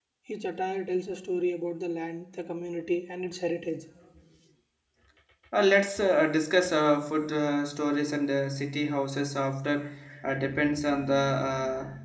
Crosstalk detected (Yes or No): No